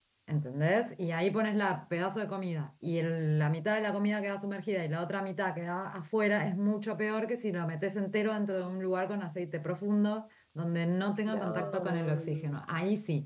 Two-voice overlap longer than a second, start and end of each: 11.3-12.6

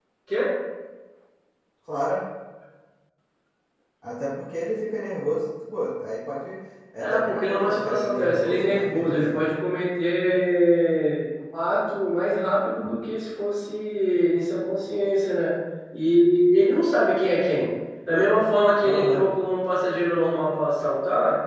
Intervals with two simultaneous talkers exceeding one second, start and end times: 7.0-9.5

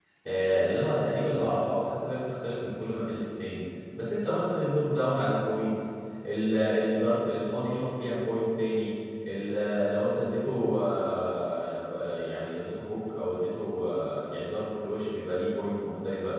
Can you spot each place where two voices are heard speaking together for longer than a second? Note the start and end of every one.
none

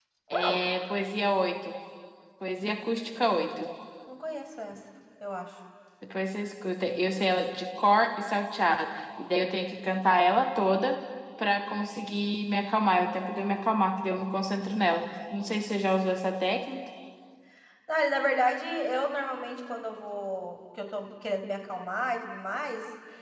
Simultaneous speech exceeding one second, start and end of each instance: none

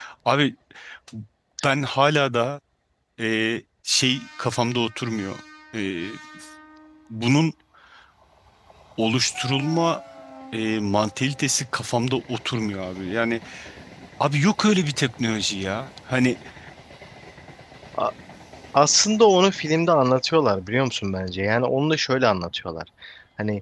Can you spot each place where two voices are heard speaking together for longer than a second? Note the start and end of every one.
none

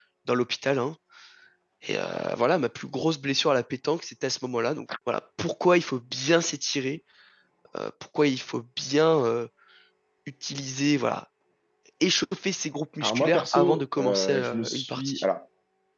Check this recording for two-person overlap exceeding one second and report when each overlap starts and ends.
13.0-15.2

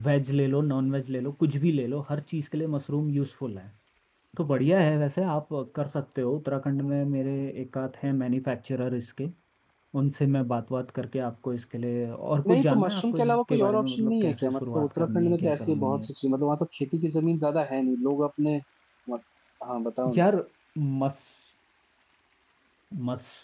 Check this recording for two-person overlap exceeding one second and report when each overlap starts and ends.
12.4-16.1

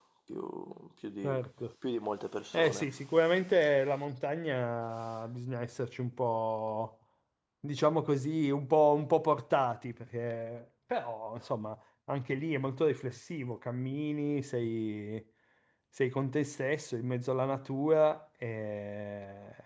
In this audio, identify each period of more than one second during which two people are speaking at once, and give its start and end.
none

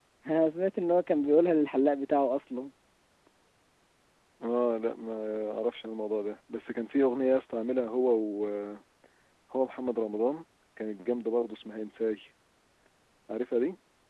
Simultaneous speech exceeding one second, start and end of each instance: none

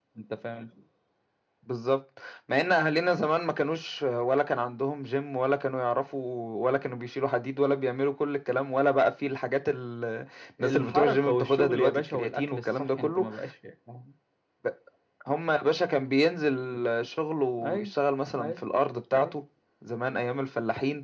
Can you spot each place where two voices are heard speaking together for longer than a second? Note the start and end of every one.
10.6-13.3

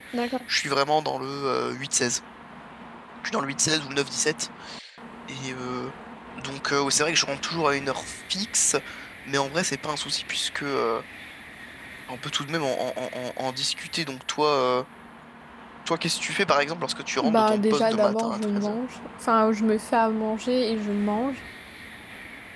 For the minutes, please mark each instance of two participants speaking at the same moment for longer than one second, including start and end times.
17.2-18.8

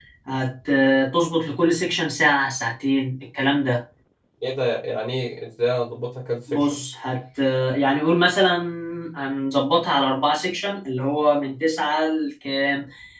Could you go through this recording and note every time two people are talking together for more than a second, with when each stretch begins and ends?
none

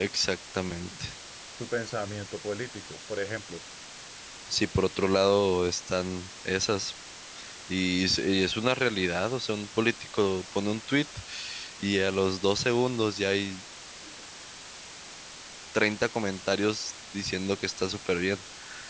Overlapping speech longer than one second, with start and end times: none

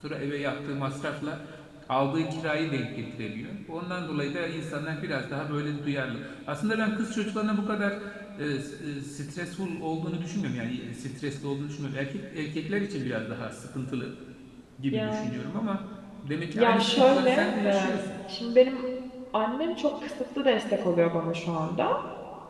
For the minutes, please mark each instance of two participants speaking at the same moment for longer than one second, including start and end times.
16.5-18.0

